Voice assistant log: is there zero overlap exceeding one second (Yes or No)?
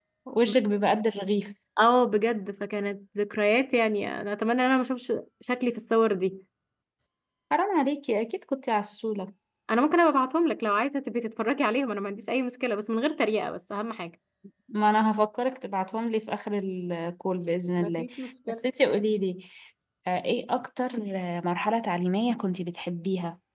Yes